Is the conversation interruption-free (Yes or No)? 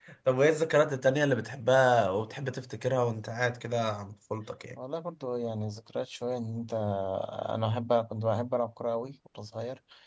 Yes